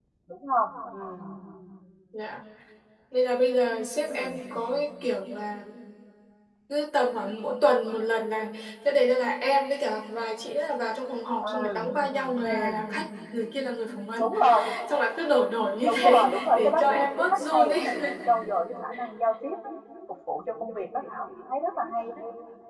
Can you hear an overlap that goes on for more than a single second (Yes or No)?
Yes